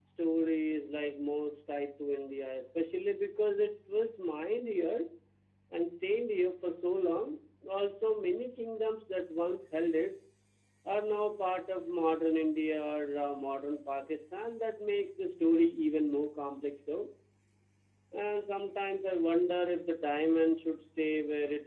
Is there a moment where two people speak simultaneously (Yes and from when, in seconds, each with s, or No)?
No